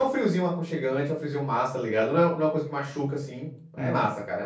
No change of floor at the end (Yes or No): No